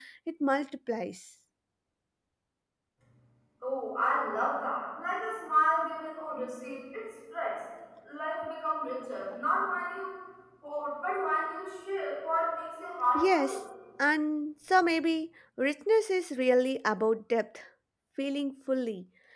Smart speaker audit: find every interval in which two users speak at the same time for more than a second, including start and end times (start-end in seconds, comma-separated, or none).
none